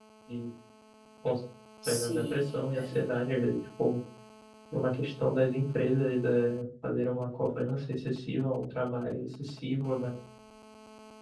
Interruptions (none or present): present